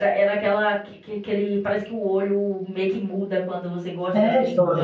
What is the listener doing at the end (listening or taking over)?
taking over